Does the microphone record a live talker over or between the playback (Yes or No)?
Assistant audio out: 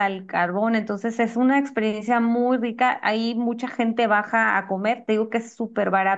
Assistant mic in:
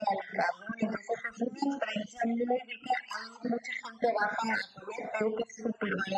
No